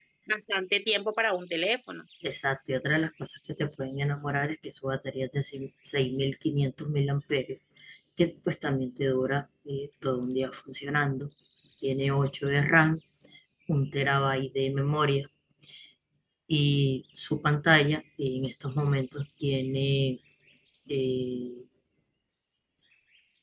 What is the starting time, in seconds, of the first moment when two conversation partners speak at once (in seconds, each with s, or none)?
none